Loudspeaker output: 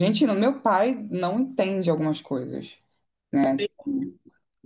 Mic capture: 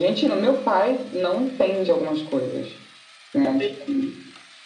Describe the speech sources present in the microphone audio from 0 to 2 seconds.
echo only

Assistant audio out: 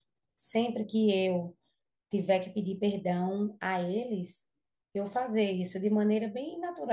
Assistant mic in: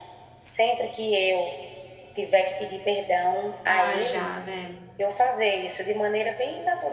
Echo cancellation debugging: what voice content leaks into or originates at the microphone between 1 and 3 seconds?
echo only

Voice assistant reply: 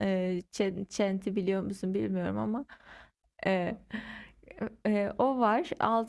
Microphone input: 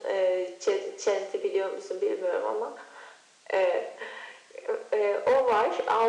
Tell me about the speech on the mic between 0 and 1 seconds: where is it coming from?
echo only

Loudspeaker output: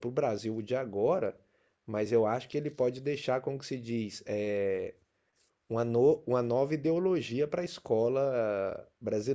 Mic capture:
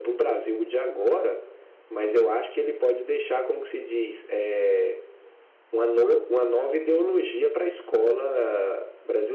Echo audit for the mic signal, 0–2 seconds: echo only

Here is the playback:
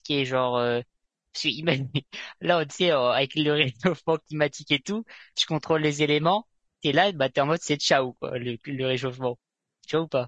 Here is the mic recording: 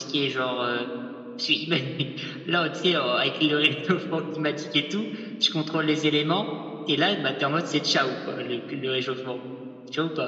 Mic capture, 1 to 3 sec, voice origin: echo only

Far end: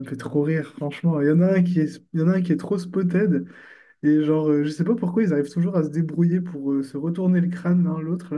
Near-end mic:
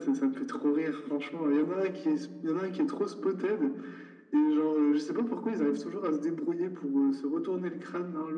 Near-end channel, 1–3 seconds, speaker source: echo only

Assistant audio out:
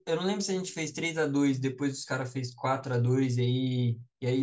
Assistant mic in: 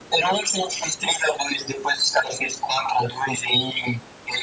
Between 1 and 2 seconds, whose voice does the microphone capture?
echo only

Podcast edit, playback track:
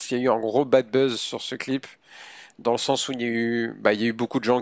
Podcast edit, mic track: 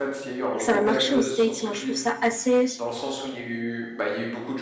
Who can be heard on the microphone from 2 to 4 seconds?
both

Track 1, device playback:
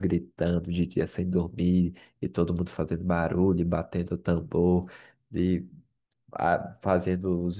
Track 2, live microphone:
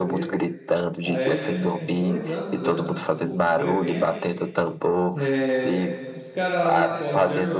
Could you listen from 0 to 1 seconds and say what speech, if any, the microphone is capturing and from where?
both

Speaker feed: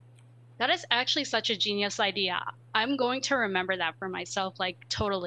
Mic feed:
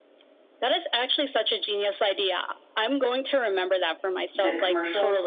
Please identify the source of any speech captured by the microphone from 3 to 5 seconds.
both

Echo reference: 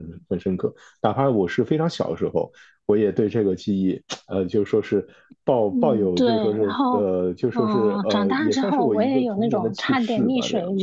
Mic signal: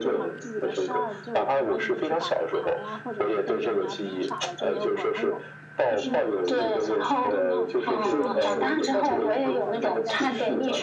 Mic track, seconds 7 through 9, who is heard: both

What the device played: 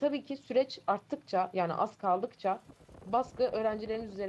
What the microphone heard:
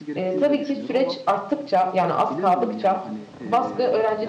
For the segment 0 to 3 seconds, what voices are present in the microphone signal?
both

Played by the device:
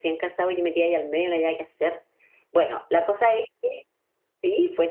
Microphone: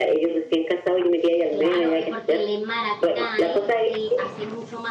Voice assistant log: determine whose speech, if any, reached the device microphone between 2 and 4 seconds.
both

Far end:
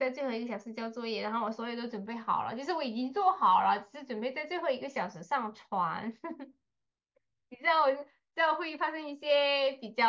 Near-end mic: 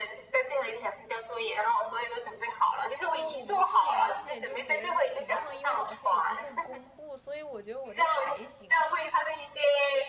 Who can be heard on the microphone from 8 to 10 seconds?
both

